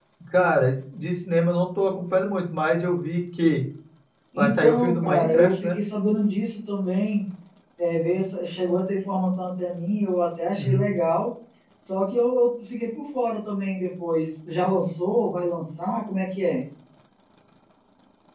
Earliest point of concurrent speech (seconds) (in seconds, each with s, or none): 4.4 s